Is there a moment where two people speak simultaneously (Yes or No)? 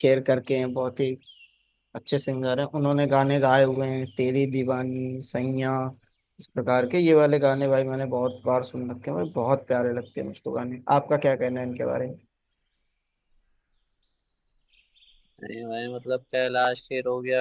No